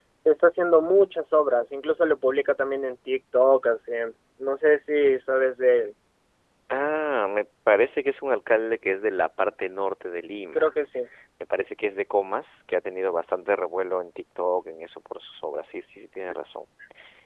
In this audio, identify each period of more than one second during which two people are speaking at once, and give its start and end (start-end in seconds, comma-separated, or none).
none